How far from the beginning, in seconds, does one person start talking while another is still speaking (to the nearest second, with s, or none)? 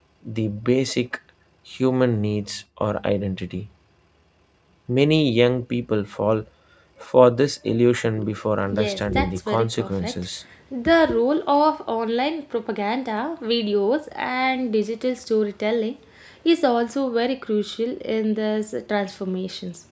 9 s